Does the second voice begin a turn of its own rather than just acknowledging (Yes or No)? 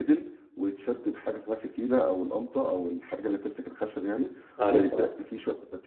No